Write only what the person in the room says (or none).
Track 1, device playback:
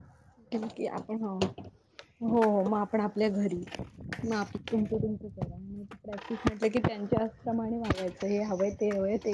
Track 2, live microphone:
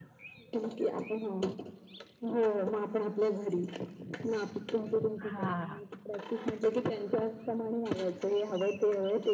हा.